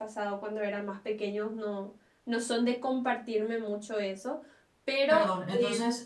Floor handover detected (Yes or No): Yes